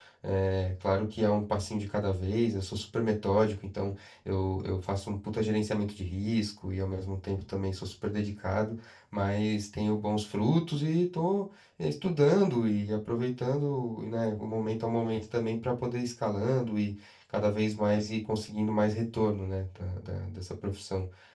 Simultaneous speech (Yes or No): No